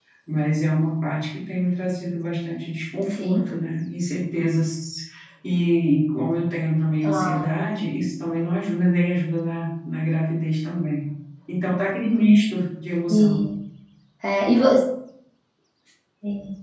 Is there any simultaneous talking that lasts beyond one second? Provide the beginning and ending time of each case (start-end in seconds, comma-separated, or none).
none